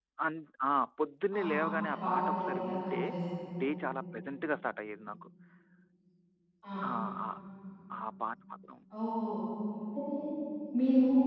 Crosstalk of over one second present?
Yes, from 1.3 s

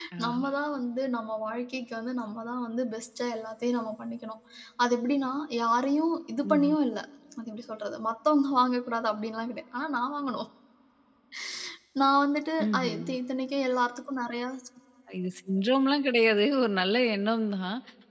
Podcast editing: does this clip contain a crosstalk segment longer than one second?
No

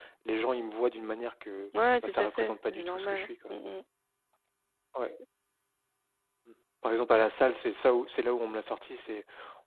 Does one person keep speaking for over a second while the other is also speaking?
Yes, from 2.0 s

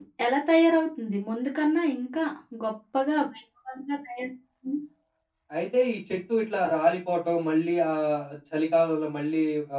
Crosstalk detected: No

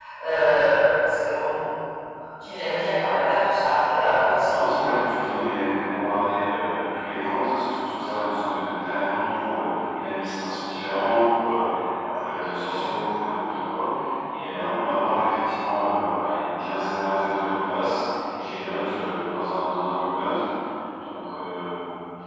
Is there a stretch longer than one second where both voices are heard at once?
No

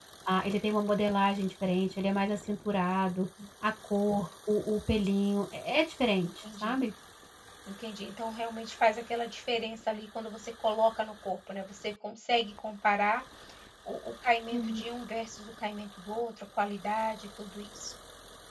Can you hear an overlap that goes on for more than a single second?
No

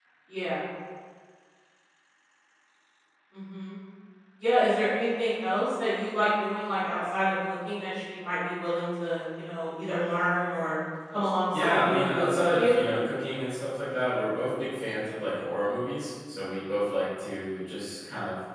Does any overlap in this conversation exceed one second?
Yes, from 11.5 s

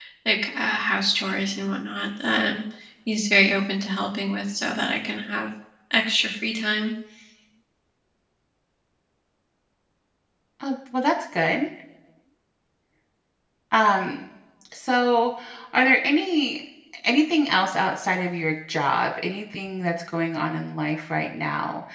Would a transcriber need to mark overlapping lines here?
No

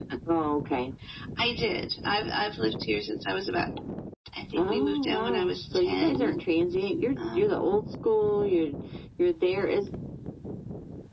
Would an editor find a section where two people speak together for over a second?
Yes, from 4.5 s

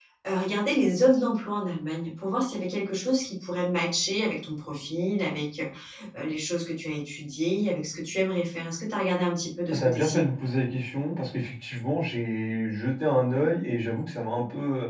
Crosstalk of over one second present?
No

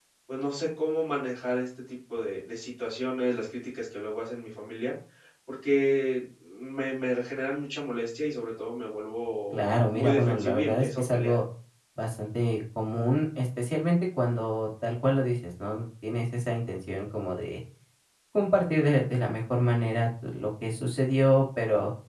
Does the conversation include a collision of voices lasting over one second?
Yes, from 9.5 s

